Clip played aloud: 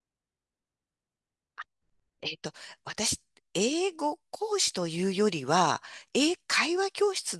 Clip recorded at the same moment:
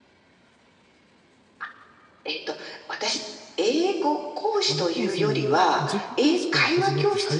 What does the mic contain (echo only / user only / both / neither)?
both